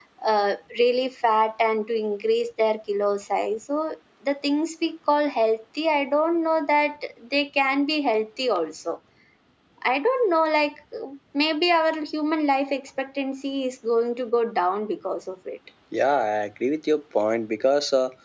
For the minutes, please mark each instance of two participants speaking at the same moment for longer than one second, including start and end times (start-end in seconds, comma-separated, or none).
none